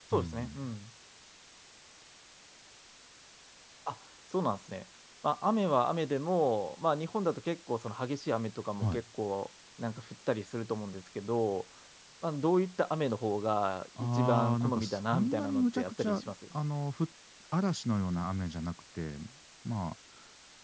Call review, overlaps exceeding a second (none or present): present